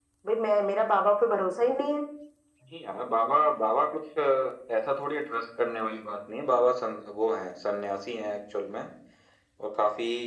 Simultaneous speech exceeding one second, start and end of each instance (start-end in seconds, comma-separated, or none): none